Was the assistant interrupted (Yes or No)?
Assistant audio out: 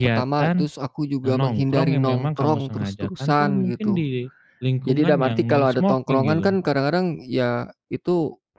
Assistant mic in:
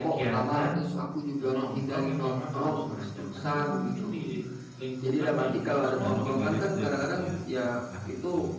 Yes